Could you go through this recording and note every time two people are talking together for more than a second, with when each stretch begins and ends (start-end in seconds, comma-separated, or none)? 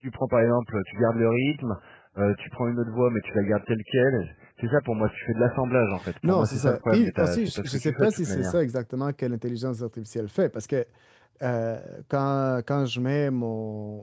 6.2-8.6